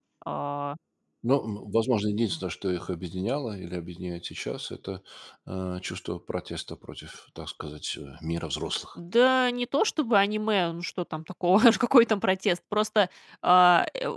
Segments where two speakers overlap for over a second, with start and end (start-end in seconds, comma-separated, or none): none